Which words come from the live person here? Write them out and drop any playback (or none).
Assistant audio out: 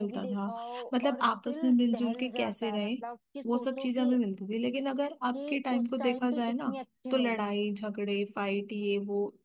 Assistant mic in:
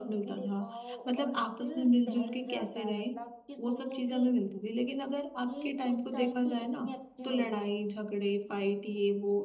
none